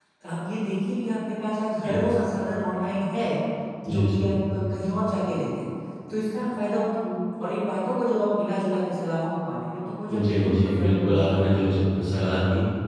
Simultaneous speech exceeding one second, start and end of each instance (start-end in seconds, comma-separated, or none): 10.1-11.7